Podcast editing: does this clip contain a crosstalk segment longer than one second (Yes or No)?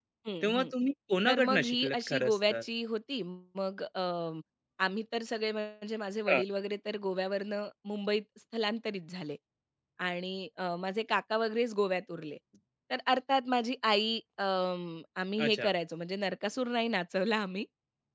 Yes